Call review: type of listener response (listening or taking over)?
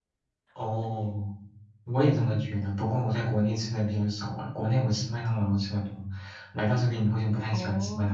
taking over